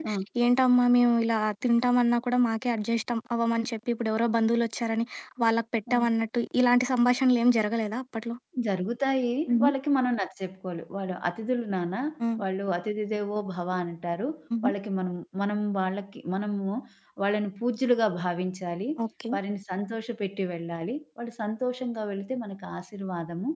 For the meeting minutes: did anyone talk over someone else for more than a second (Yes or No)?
No